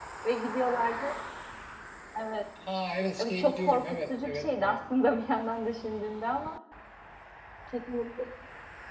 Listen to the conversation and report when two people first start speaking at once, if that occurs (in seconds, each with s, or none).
3.2 s